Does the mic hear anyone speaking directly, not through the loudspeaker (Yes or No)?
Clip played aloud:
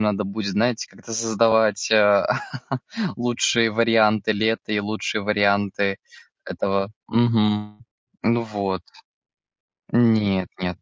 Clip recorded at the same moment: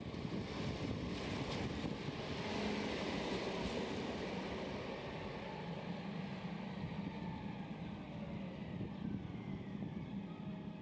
No